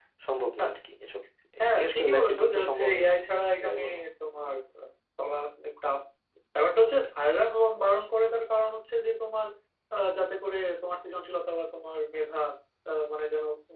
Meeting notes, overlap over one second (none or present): present